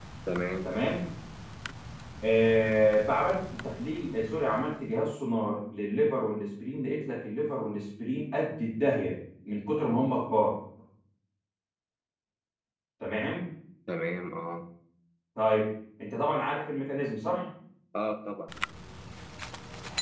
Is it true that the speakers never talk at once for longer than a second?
Yes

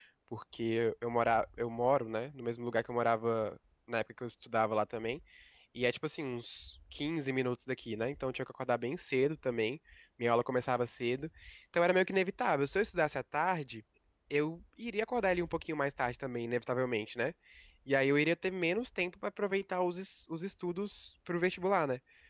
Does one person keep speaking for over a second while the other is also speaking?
No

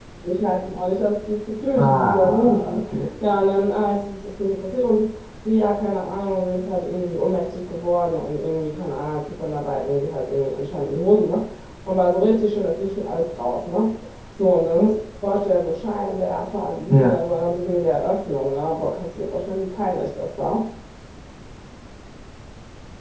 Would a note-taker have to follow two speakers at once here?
Yes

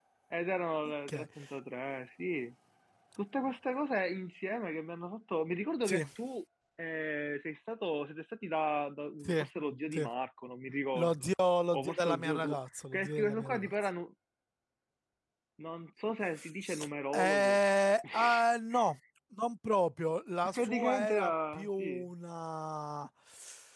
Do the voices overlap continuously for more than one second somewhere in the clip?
Yes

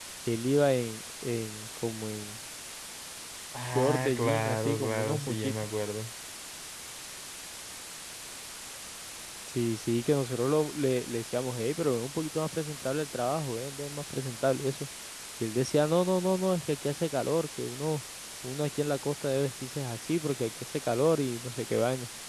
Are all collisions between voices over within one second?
No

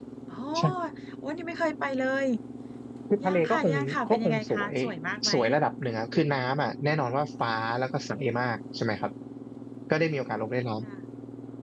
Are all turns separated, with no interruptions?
No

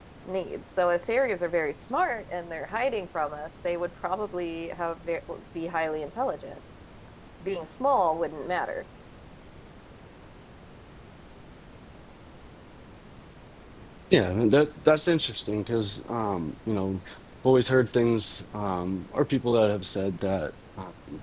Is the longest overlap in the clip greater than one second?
No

